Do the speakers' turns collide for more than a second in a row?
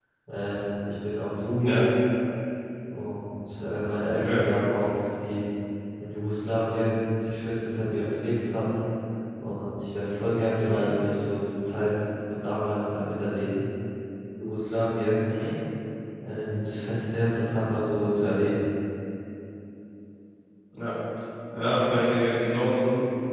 No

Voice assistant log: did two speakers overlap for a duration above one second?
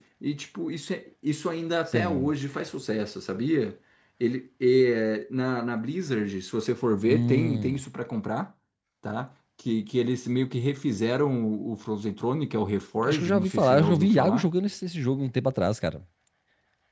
Yes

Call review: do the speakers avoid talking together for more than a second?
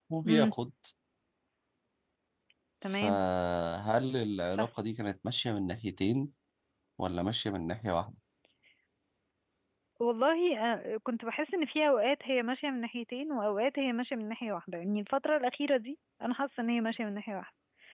Yes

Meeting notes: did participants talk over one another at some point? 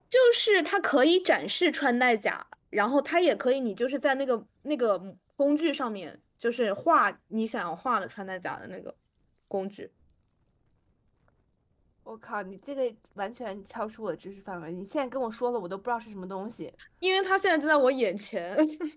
No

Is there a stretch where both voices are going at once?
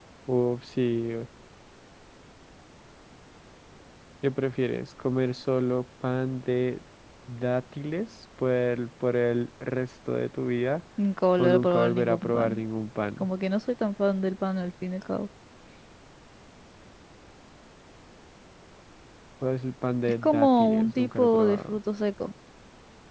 Yes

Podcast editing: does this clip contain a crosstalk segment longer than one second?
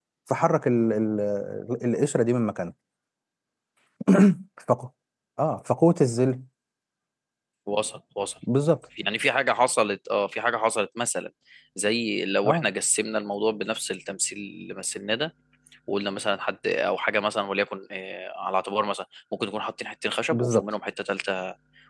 No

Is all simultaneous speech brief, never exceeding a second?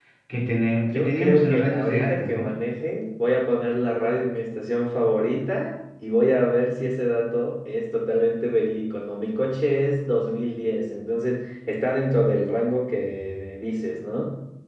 No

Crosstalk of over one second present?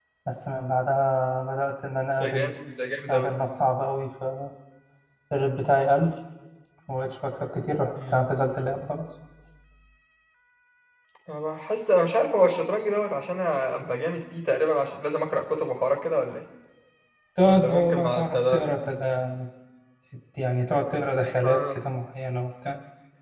Yes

